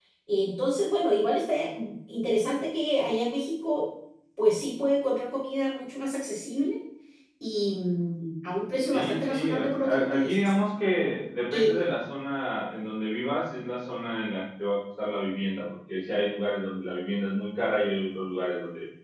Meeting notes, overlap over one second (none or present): present